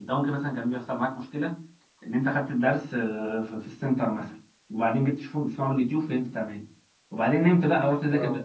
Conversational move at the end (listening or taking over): listening